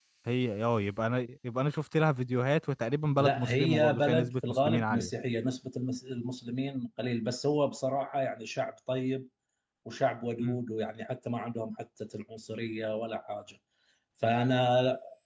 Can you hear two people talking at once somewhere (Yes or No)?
Yes